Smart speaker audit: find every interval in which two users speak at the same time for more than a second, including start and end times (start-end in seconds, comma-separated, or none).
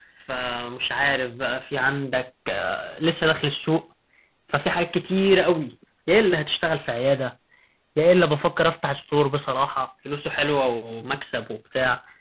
none